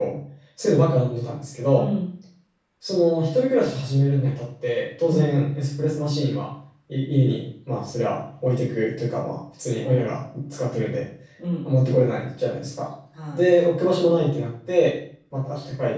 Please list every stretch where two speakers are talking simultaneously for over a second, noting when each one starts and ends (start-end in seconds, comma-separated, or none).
none